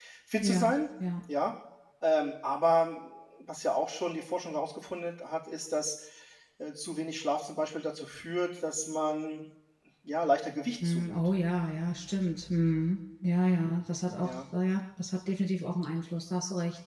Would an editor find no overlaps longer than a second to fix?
Yes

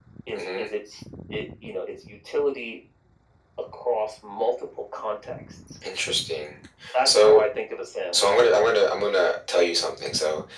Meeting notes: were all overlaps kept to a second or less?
Yes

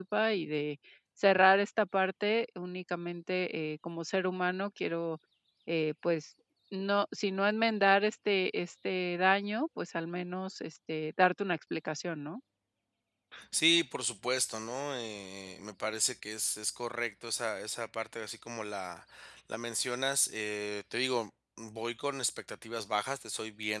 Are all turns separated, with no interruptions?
Yes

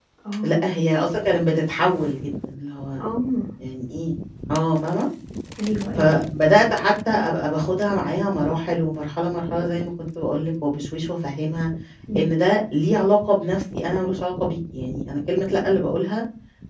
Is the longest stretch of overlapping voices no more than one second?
Yes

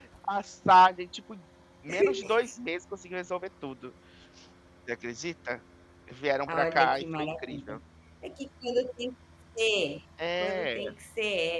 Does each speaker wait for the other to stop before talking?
No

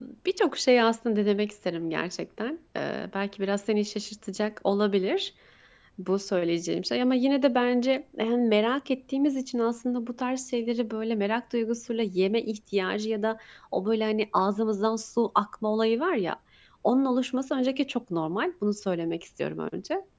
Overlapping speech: No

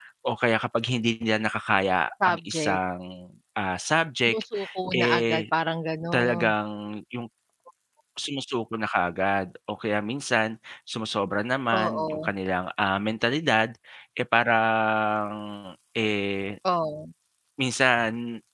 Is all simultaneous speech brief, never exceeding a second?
Yes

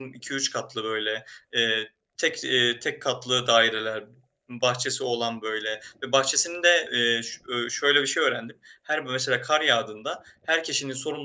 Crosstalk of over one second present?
No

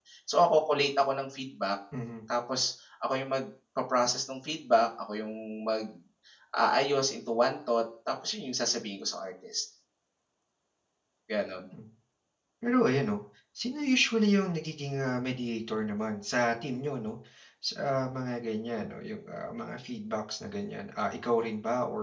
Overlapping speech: No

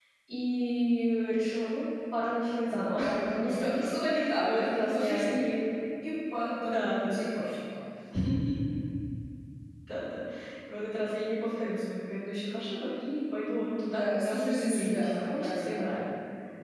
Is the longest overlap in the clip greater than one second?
Yes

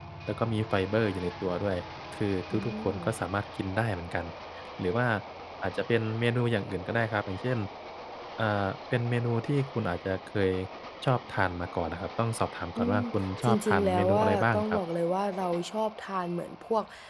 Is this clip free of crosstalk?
No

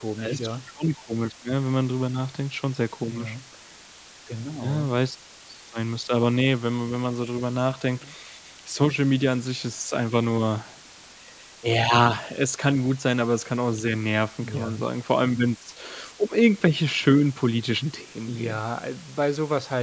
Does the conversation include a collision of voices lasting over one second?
No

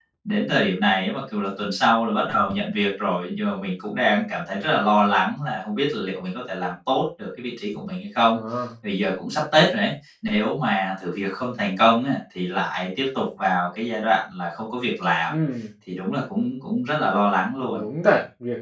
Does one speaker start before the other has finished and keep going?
No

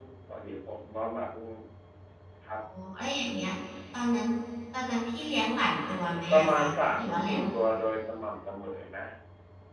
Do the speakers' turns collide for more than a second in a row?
Yes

